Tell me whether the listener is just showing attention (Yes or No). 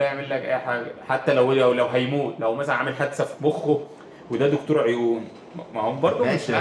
No